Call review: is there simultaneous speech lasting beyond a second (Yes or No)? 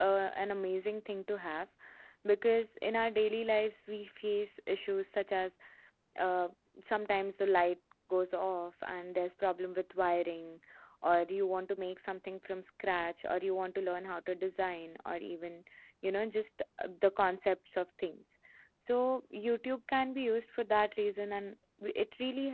No